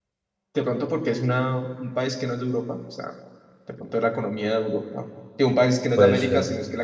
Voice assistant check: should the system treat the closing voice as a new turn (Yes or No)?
No